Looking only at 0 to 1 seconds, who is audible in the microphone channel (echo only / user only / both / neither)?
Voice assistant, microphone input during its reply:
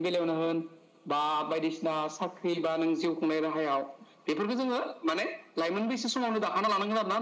echo only